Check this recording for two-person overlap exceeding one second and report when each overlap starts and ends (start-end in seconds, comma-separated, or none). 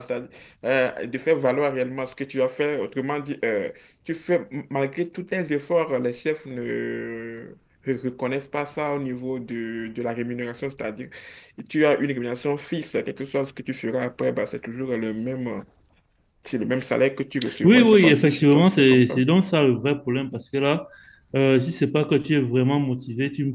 17.6-19.2